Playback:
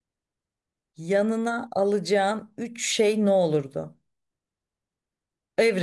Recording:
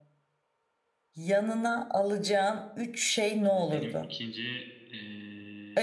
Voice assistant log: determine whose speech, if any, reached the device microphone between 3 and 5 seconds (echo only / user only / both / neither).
both